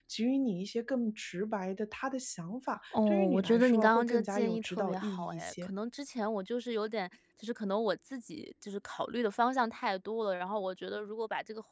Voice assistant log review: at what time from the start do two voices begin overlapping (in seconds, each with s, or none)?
2.9 s